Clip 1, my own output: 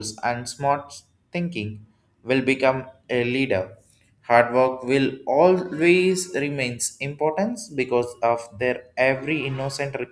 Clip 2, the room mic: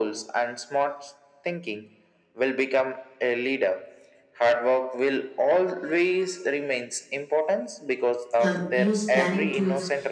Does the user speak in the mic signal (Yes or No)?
Yes